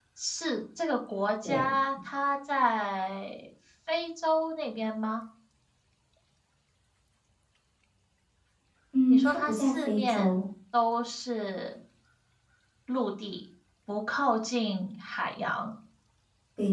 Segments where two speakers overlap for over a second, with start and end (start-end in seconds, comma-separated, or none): 9.1-10.4